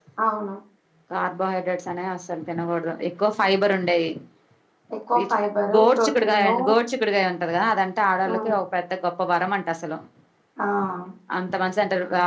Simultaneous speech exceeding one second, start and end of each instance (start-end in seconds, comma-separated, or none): 5.2-6.5